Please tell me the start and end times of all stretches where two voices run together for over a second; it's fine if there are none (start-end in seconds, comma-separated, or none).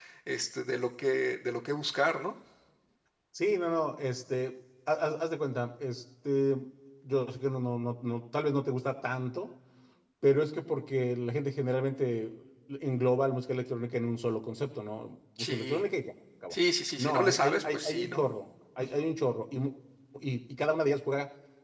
17.0-18.3